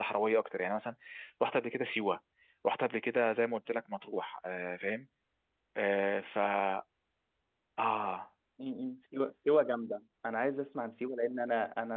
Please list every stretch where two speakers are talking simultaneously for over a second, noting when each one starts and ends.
none

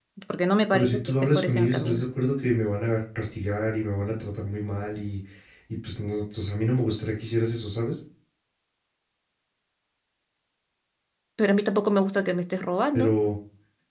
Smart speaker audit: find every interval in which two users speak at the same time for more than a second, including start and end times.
0.7-2.0

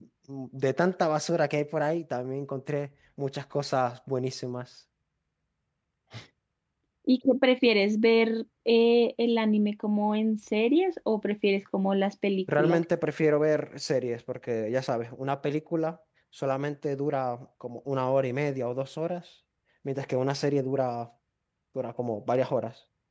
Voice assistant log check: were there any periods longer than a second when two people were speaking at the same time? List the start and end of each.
none

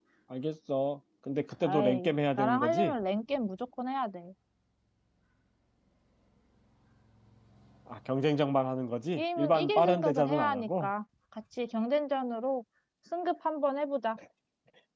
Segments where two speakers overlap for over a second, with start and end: 1.6-2.9, 9.2-10.9

